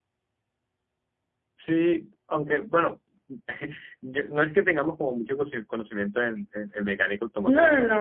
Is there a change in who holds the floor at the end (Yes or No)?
Yes